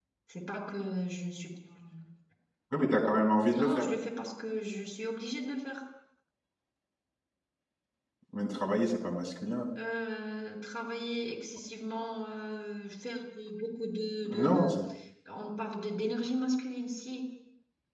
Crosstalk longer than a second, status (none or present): none